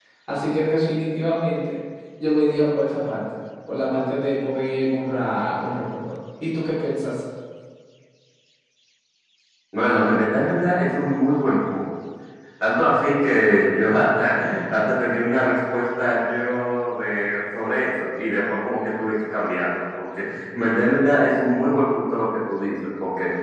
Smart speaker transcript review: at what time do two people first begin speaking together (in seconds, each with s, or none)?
none